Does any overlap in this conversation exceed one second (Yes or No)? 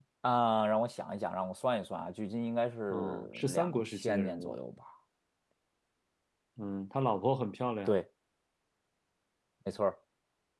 Yes